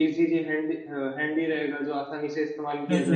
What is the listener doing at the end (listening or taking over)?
taking over